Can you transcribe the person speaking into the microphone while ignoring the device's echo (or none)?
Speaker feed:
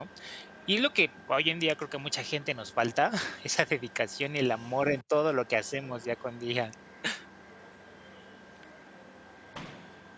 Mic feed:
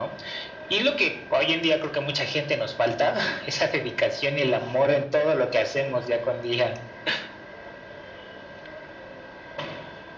none